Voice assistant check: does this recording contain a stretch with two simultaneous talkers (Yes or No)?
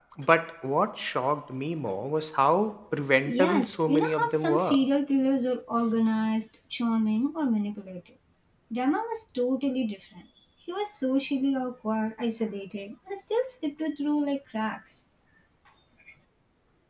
Yes